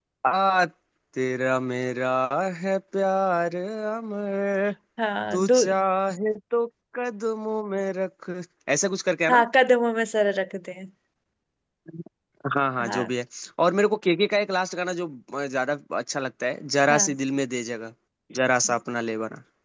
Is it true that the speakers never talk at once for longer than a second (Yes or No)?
Yes